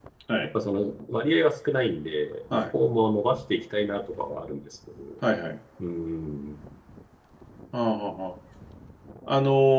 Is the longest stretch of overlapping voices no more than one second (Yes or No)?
Yes